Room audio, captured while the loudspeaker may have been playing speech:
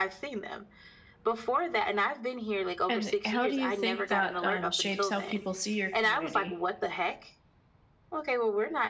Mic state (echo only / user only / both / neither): both